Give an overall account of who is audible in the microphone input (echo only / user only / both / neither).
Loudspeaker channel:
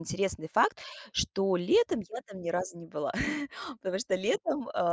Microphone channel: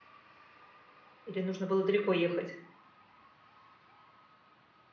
user only